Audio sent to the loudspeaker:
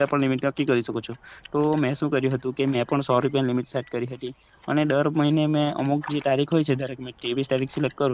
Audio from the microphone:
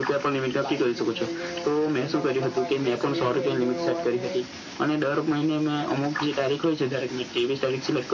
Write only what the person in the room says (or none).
લાઈટ બિલ થઈ ગયું કોઈ પણ મતલબ ગેસ બિલ થઈ ગયું અને